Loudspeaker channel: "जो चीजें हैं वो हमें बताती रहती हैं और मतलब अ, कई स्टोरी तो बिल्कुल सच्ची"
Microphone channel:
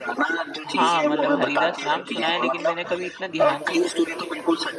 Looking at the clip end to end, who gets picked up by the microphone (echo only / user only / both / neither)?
both